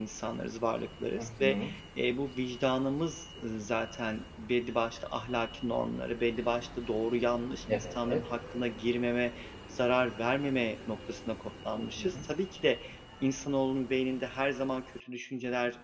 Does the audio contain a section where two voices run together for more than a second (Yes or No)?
No